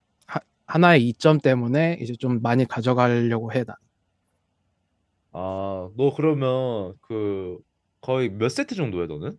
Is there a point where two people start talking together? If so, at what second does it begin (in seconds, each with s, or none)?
none